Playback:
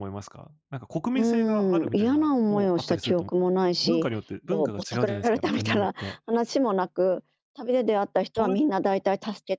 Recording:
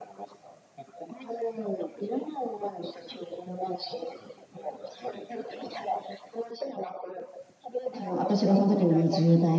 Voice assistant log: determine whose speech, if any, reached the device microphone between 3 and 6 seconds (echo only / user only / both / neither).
echo only